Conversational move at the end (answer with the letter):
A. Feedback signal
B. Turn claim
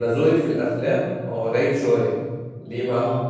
A